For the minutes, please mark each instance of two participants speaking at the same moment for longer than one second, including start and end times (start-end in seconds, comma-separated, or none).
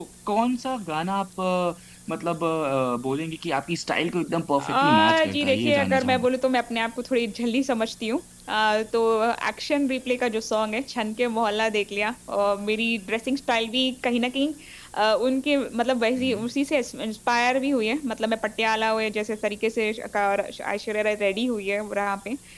4.6-6.3